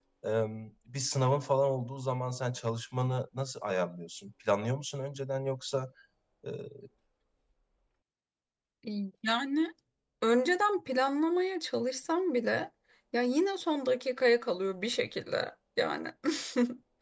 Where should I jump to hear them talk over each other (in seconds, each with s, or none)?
none